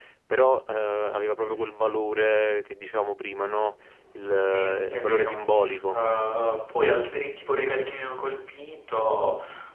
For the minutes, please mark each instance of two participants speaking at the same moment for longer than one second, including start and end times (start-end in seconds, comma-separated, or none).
4.4-6.0